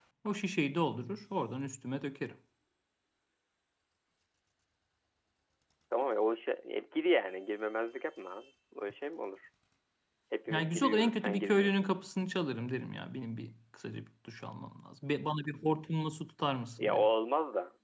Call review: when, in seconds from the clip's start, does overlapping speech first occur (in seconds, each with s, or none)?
10.5 s